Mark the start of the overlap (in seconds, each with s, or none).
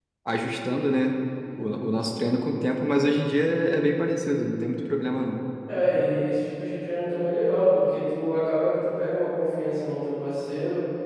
none